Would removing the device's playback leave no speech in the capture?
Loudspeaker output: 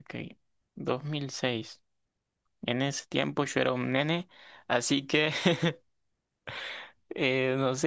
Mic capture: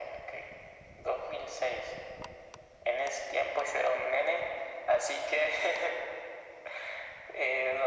Yes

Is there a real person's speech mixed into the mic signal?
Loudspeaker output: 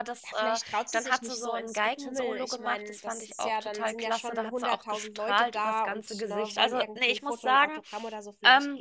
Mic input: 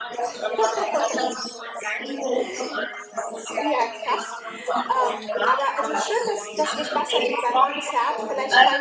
Yes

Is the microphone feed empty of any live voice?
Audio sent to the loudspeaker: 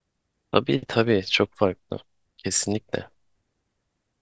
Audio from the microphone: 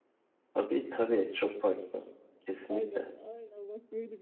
No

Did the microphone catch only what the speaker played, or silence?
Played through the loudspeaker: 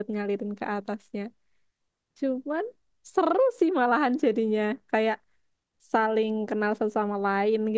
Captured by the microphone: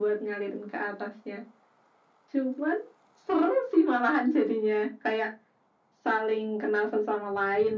Yes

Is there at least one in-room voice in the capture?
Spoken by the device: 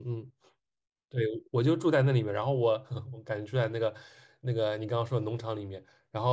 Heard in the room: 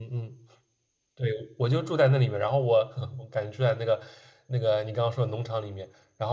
No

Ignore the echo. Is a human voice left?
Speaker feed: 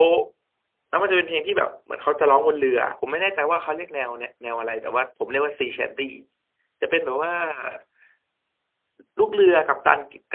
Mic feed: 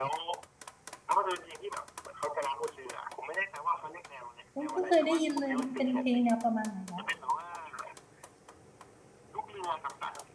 Yes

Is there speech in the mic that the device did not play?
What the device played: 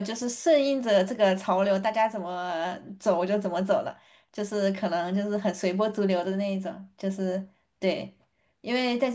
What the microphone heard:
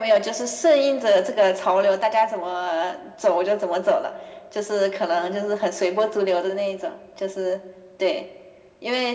No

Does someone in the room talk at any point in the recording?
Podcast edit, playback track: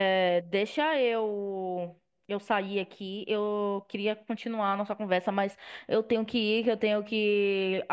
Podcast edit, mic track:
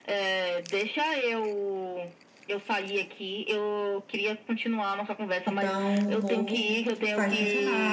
Yes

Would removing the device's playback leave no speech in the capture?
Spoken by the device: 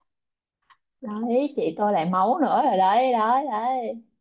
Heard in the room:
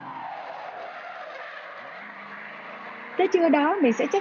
No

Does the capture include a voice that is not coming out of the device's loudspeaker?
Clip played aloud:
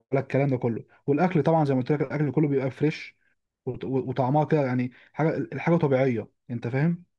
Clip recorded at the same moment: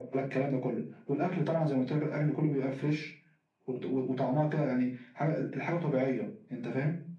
No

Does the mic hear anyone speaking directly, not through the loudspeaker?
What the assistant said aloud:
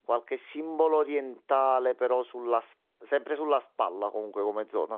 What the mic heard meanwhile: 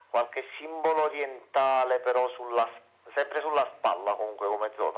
No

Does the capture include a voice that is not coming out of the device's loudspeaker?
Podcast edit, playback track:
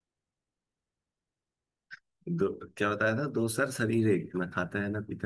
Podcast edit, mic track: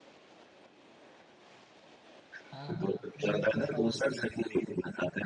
Yes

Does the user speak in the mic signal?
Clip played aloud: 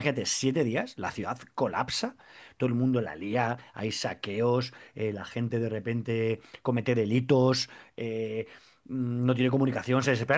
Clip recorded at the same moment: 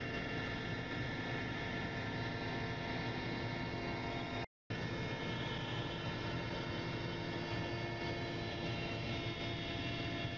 No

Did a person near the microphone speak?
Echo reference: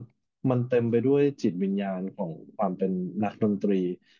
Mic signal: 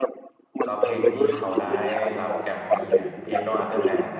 Yes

